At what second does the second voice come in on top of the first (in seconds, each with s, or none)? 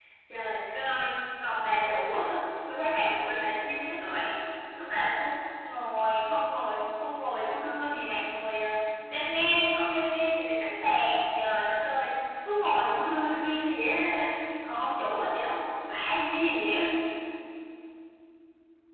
none